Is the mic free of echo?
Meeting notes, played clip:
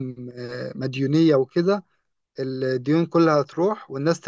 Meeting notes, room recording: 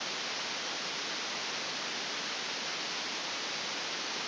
Yes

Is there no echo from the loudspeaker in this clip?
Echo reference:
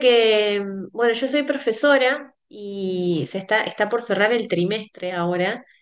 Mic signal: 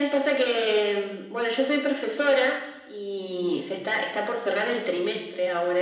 No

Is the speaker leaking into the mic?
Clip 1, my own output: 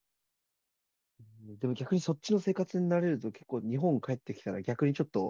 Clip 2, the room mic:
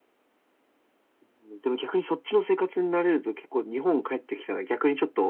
Yes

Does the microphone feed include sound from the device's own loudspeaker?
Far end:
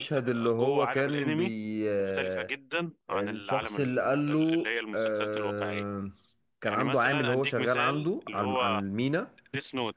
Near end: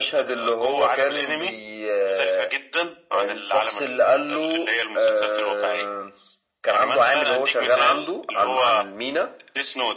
Yes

